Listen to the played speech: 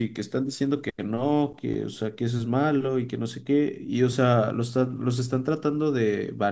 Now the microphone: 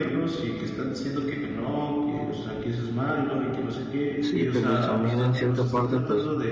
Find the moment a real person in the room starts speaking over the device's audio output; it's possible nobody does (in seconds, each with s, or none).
4.2 s